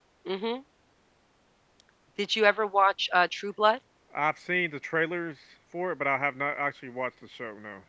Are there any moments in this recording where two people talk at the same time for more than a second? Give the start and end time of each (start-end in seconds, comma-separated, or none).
none